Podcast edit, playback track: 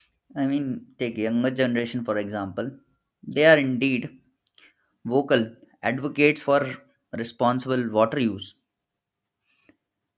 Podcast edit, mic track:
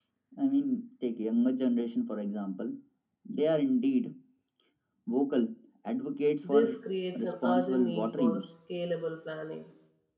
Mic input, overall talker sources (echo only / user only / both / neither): both